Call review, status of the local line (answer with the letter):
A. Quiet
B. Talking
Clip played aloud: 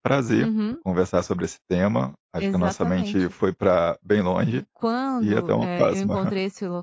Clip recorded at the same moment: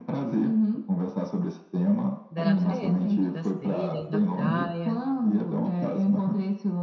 B